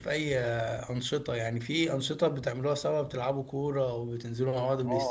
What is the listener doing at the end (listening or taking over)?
taking over